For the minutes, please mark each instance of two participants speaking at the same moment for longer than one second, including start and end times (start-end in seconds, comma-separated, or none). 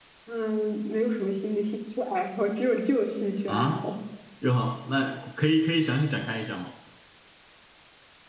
none